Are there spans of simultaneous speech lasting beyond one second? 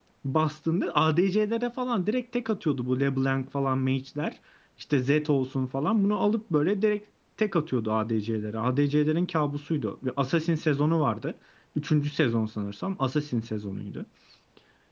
No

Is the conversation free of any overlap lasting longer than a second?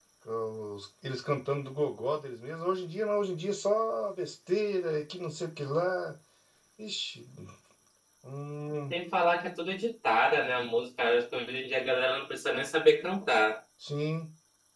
Yes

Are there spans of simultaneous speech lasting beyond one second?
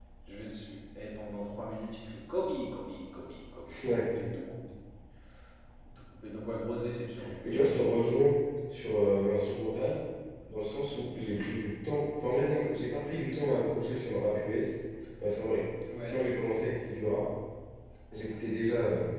No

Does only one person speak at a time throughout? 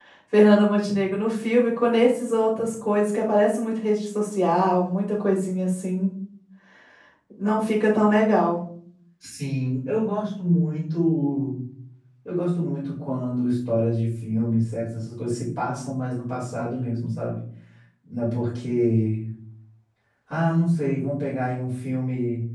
Yes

